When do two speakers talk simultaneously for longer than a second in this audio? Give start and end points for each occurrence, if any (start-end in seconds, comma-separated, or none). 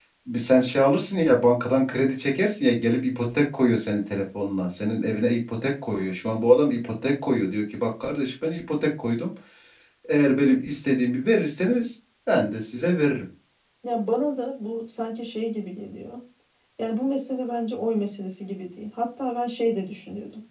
none